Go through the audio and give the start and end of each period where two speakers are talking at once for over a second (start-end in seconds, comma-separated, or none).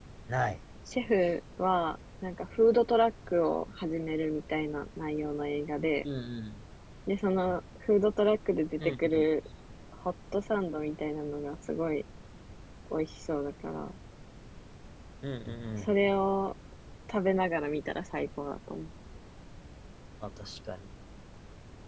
none